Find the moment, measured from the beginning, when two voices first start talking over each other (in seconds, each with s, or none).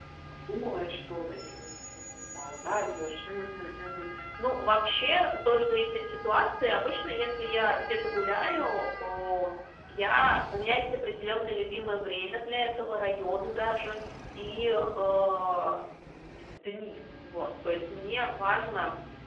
none